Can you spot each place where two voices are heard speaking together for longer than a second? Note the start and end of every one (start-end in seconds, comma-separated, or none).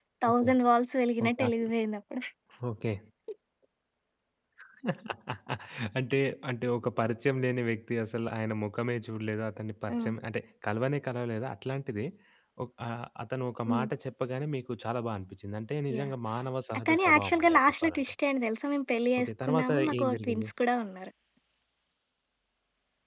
16.8-18.1, 19.2-20.5